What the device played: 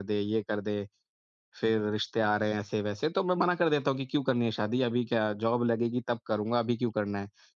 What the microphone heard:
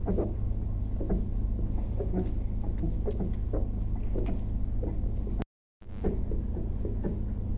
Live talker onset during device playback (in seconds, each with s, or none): none